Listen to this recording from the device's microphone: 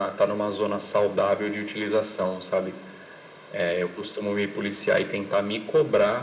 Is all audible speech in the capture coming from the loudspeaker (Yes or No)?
Yes